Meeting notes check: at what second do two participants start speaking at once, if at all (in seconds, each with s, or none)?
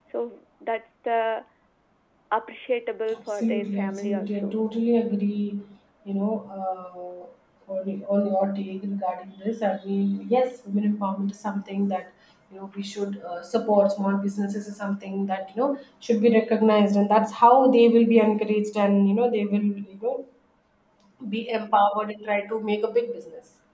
3.2 s